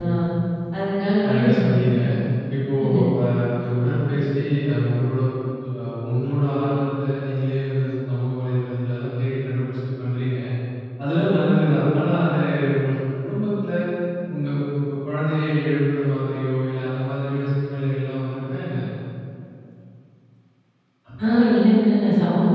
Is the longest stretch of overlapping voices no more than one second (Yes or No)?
Yes